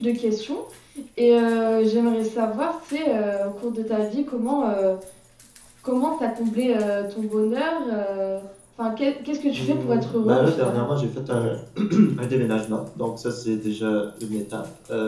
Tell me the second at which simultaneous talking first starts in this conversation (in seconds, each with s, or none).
9.5 s